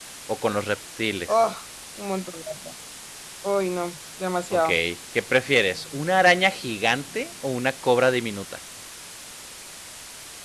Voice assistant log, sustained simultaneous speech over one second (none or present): none